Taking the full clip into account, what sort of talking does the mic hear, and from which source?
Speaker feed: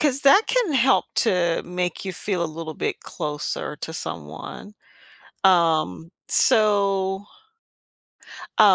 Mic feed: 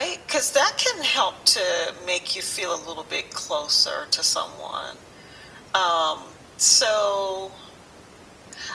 echo only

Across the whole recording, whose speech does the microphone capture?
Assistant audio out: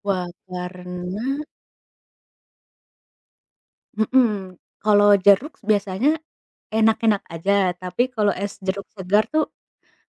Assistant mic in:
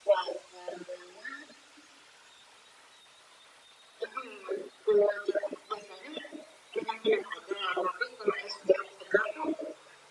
echo only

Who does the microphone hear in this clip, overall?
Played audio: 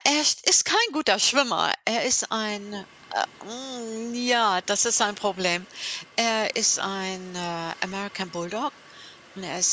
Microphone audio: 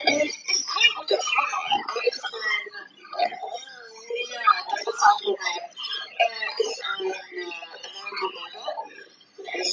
echo only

